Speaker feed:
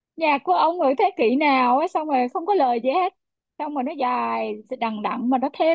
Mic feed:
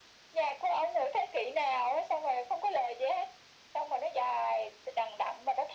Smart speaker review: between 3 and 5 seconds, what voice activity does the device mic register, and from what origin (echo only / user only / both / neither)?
echo only